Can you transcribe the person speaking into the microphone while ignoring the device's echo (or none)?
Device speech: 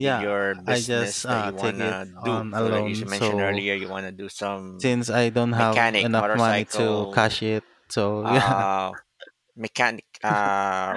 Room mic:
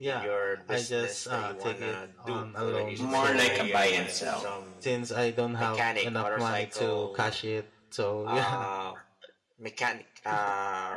more like a buy and sell.